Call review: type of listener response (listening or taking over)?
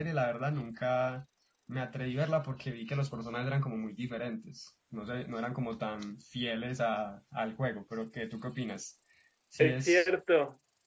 taking over